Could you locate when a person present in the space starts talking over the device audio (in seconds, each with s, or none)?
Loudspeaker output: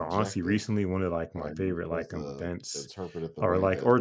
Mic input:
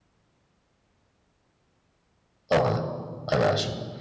2.5 s